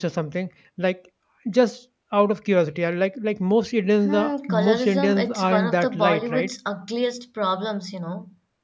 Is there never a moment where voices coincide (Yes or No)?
No